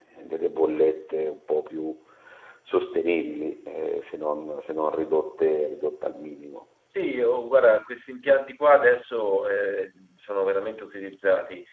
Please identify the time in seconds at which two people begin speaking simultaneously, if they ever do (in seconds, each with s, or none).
none